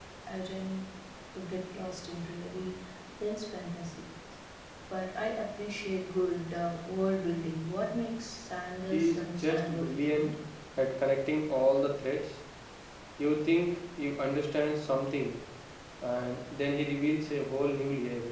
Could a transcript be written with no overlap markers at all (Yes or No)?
No